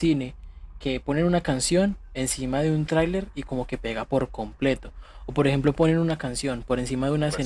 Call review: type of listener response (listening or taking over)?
listening